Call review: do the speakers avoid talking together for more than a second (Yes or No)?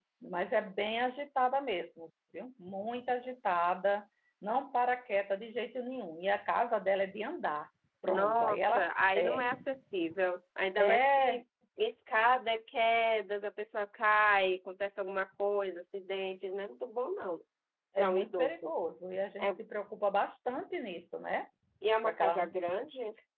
No